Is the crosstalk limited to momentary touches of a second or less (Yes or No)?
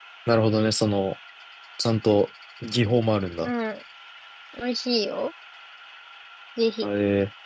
Yes